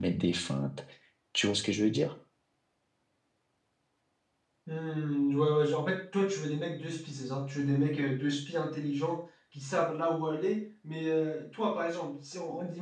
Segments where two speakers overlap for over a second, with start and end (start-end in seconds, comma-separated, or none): none